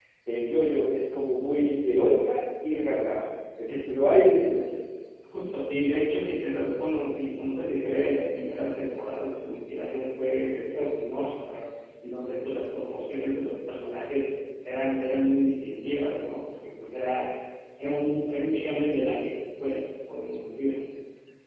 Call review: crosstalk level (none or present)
none